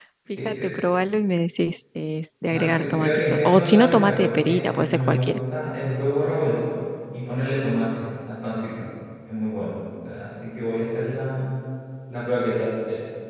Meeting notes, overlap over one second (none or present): present